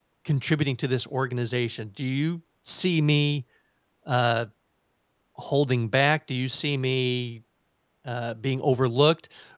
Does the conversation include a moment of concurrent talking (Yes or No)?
No